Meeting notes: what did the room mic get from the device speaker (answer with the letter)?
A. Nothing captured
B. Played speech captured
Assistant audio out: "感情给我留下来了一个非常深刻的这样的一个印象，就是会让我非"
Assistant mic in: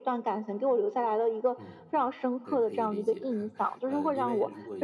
B